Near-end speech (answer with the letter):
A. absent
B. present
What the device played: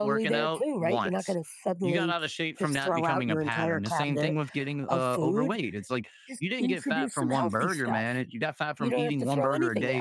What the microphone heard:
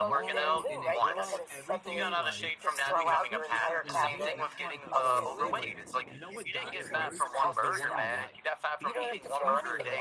B